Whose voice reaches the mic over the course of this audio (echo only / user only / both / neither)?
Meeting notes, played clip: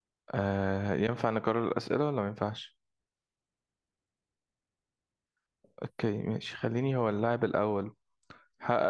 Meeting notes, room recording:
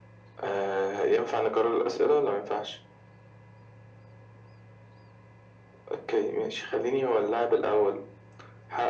echo only